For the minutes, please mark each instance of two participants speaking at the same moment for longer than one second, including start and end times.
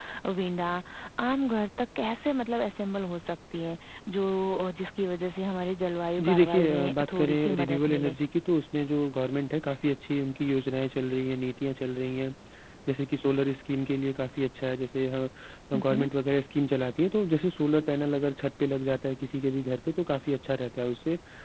6.2-8.2

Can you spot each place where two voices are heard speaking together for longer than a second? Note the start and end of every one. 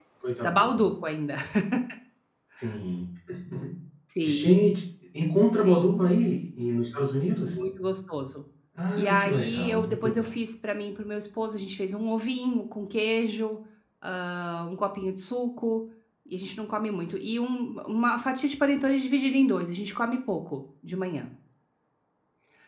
9.0-10.3

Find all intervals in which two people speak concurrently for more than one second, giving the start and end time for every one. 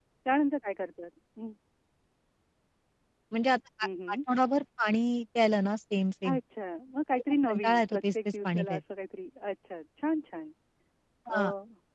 7.5-8.8

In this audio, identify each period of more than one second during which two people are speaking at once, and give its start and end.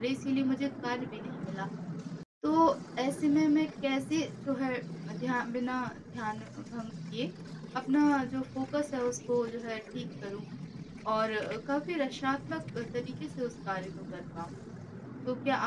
none

